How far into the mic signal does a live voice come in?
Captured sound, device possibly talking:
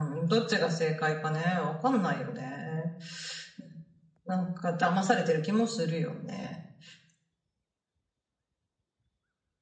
none

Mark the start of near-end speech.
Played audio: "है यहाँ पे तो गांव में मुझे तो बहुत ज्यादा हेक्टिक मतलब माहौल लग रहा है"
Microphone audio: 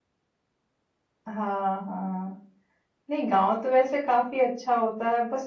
1 s

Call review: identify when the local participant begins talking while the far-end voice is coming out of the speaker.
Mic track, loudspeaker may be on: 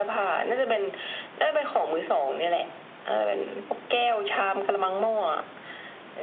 none

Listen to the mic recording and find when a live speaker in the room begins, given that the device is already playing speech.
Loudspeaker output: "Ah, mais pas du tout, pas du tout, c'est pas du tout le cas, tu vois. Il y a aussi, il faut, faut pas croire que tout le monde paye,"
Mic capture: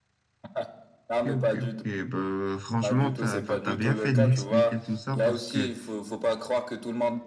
1 s

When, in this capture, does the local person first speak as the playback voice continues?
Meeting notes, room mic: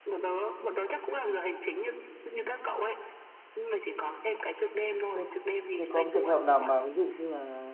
5 s

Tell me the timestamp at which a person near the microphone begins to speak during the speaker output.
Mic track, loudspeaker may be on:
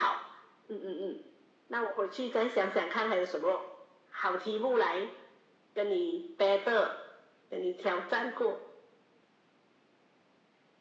none

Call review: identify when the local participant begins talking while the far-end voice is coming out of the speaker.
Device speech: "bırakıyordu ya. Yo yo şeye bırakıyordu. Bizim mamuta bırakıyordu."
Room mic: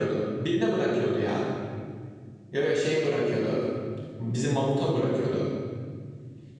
none

